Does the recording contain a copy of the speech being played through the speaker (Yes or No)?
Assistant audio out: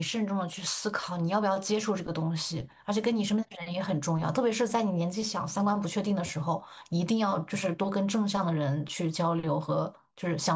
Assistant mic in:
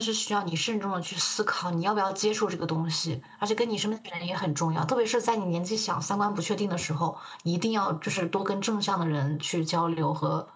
Yes